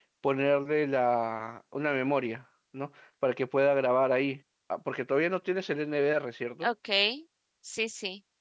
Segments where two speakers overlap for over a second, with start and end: none

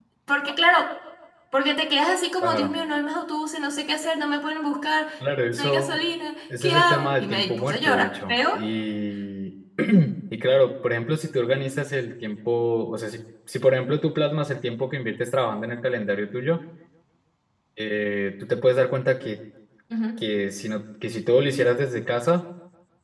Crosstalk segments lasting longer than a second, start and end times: 6.6-8.6

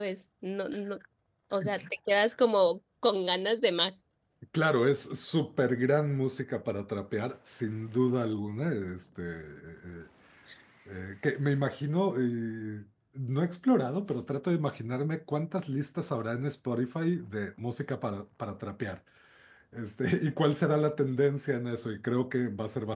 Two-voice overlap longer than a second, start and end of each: none

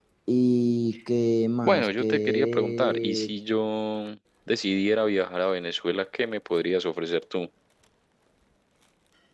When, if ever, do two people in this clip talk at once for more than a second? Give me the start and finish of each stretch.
1.6-3.3

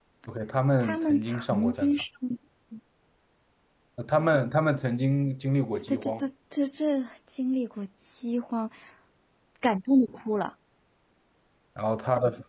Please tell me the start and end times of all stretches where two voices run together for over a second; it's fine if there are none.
0.8-2.0

